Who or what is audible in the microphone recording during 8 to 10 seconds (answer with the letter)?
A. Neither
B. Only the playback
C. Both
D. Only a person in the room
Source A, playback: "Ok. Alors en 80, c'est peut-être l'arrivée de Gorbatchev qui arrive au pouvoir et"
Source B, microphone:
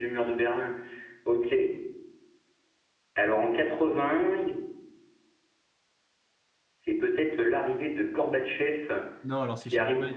C